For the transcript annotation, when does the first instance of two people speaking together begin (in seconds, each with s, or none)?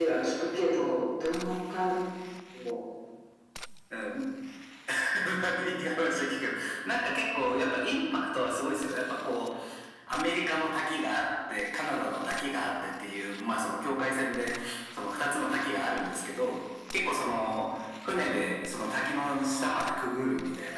none